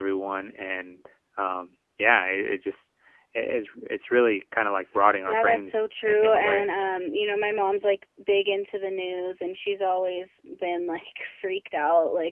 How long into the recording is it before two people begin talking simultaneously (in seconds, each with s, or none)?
5.3 s